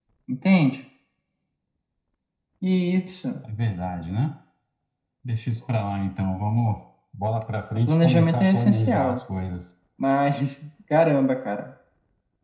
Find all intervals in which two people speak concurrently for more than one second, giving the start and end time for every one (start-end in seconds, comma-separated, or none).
7.9-9.2